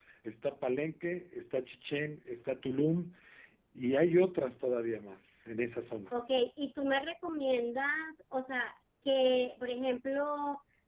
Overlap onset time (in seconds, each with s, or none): none